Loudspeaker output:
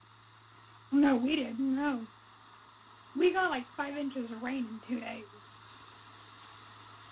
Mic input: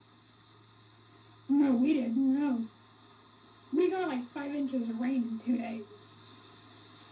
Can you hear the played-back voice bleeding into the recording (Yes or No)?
Yes